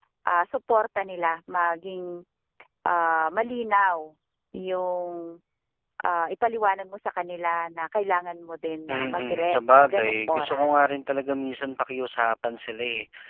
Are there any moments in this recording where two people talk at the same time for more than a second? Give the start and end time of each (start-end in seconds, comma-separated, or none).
8.9-10.8